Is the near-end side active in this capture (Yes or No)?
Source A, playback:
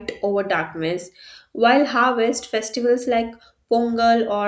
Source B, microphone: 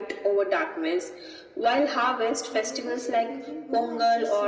Yes